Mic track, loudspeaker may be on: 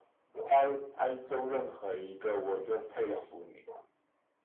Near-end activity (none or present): none